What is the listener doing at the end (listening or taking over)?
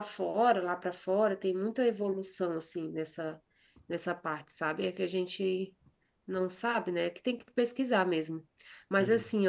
listening